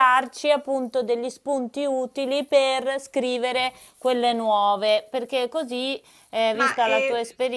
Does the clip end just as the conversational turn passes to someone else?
Yes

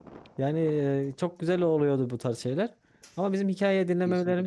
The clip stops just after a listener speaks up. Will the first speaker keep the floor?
Yes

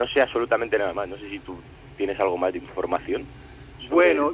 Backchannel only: No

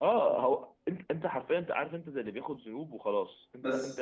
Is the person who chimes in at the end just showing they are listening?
Yes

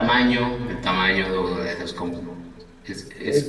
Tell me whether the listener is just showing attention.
No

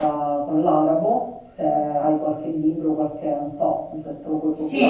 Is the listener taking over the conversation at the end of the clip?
Yes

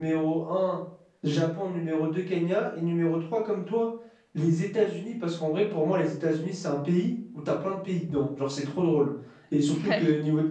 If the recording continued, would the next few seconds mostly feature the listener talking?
No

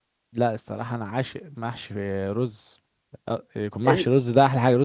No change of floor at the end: Yes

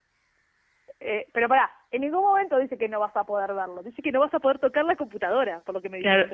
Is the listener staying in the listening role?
No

